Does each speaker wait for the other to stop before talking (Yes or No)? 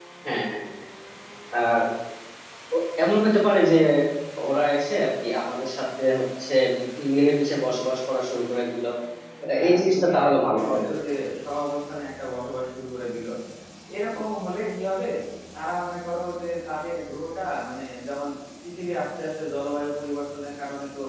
No